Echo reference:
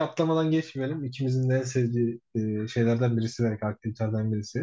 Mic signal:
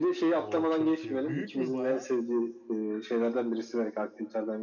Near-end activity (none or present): present